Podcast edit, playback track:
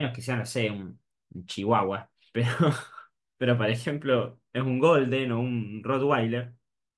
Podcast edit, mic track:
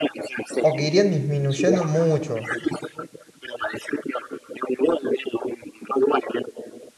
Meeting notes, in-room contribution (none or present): present